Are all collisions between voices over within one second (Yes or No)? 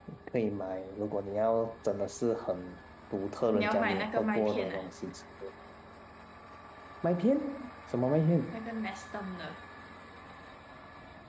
No